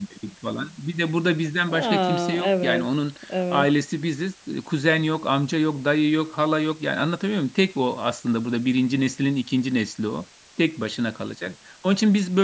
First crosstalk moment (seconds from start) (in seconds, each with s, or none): 1.7 s